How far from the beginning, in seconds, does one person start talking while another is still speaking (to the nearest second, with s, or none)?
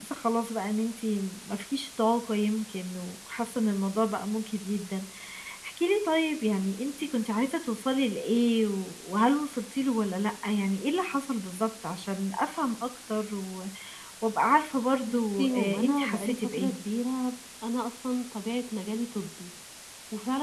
15 s